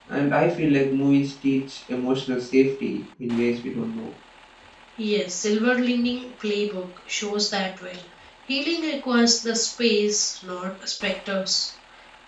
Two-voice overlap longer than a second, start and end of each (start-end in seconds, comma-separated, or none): none